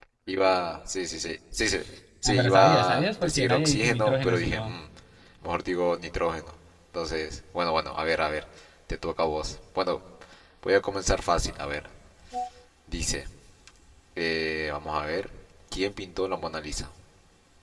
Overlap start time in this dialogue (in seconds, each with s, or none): 2.2 s